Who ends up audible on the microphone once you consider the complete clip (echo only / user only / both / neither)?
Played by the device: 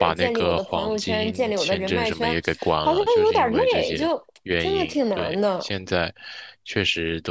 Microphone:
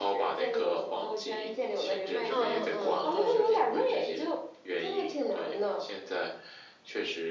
both